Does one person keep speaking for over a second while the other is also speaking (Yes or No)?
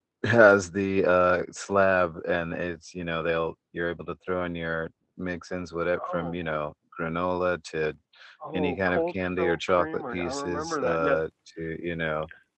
Yes